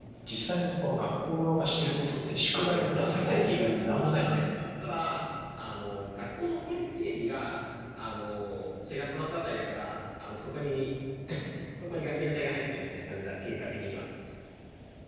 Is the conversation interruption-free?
No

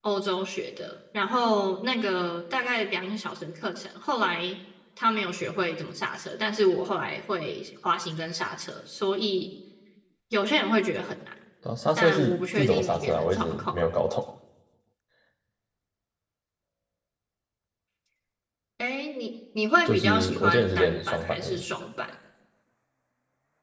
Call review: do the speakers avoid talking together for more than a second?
No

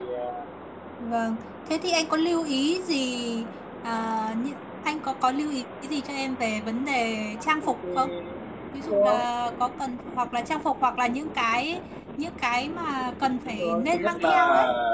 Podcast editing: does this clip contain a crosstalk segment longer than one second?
Yes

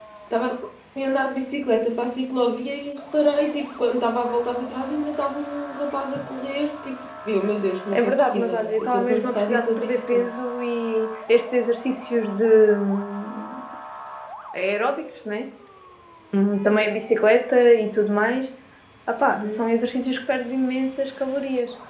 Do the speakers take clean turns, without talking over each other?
No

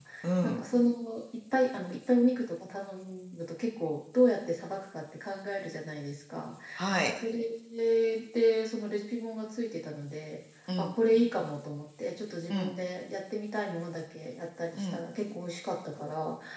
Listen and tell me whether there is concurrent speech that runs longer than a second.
No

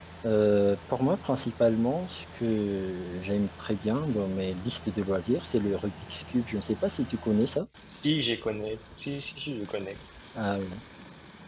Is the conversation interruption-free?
Yes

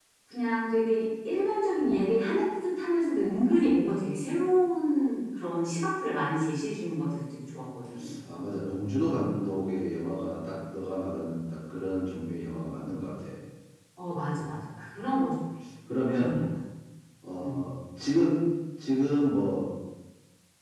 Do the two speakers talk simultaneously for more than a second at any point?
No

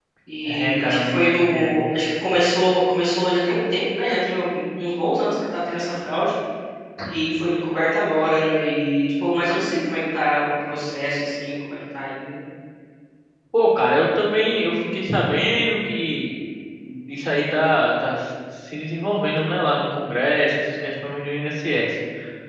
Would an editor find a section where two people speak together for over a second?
Yes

